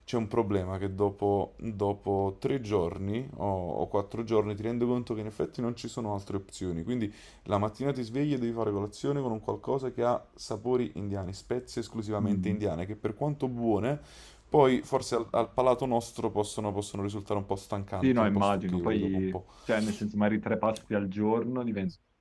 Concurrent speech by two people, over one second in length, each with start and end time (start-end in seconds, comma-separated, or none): 18.0-19.4